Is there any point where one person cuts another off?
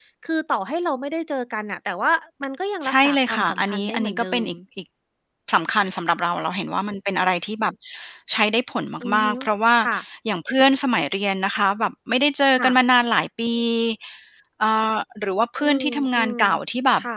Yes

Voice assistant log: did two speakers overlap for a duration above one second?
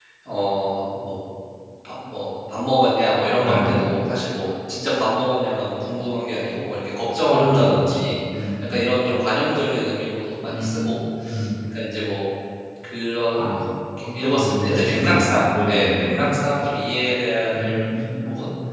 Yes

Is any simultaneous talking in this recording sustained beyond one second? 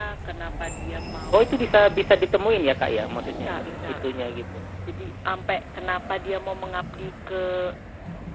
No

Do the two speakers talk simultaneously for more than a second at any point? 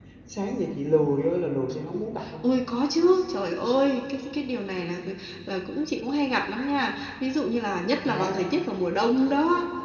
No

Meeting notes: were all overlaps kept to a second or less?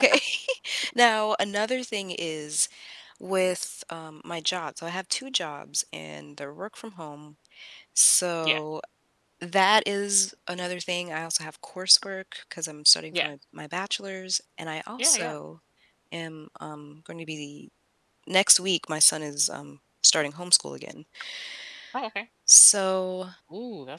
Yes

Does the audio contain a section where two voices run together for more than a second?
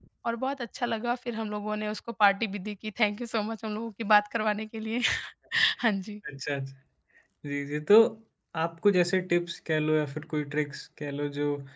No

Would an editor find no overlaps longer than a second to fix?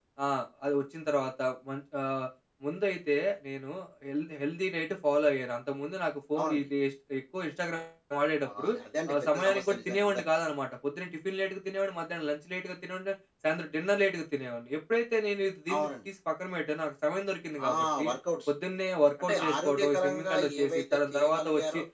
No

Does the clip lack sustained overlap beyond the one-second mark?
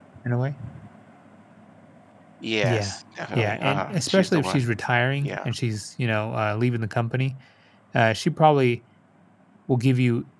No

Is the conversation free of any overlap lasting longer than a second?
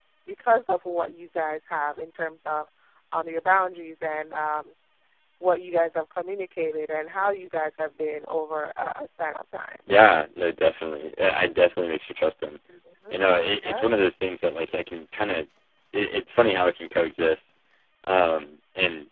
Yes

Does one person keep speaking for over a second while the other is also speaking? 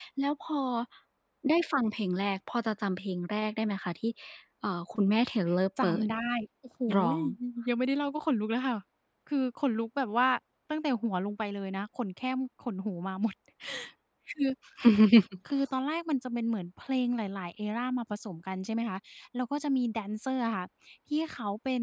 No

